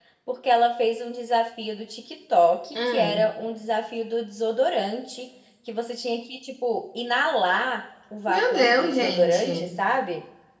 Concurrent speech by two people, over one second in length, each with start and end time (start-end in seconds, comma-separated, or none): 8.3-9.7